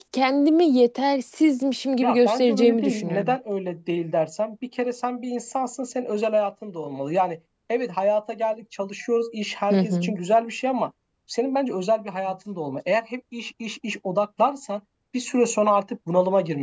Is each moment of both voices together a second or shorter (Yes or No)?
No